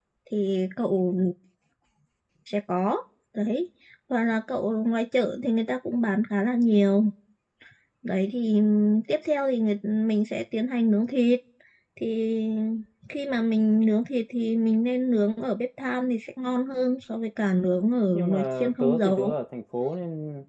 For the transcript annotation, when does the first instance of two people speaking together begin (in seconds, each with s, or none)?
18.1 s